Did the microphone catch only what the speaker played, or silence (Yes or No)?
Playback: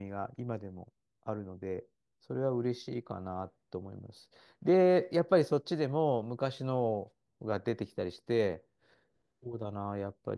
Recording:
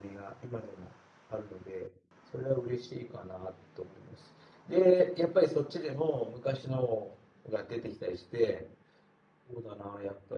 Yes